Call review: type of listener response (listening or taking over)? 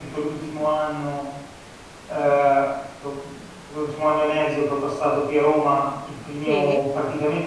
listening